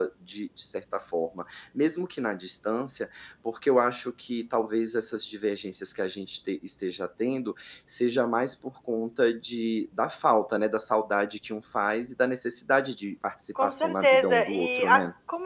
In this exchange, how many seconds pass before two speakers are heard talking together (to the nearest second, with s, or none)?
14 s